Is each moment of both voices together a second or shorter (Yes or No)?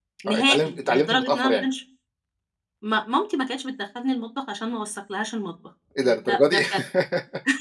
No